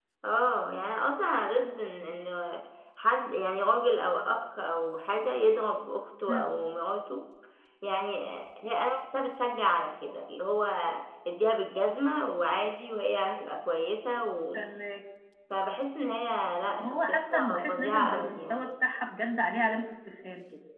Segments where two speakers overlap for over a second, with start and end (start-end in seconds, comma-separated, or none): 16.8-18.7